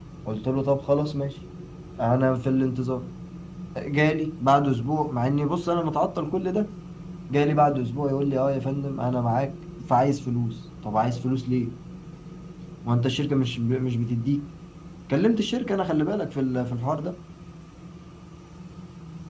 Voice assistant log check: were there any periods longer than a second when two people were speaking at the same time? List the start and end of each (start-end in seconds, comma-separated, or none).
none